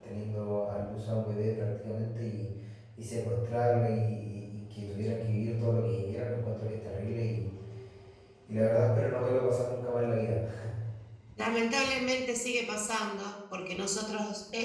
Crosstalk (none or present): none